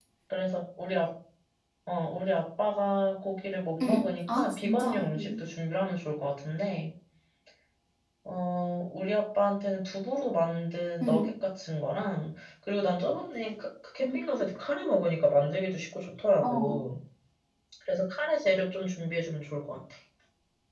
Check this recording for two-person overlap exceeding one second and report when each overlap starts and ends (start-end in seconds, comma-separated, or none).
3.8-5.4